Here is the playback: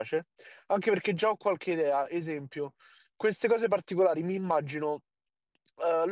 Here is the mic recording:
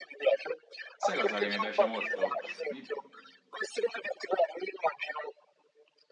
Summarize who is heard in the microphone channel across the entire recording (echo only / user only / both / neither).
both